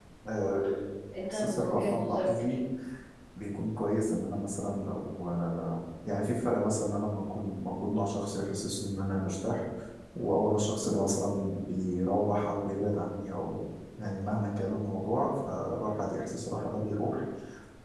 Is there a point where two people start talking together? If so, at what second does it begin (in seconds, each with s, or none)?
1.3 s